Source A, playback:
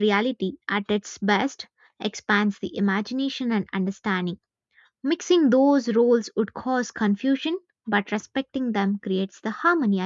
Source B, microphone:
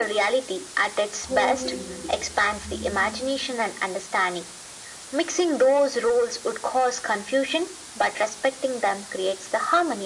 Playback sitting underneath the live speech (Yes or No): No